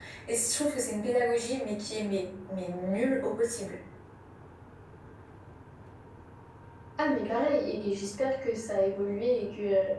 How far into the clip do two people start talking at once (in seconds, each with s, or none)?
none